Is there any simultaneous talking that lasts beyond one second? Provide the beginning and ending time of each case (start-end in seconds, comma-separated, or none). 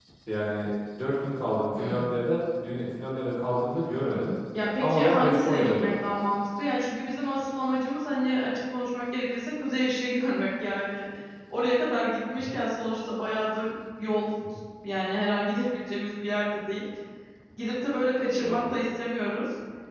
4.8-6.0